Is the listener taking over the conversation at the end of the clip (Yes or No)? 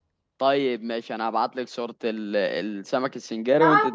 Yes